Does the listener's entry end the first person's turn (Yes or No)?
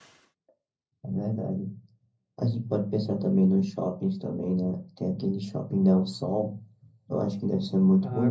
Yes